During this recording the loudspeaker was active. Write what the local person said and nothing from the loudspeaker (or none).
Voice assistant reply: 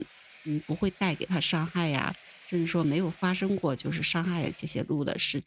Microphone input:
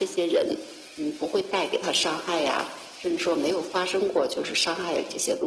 none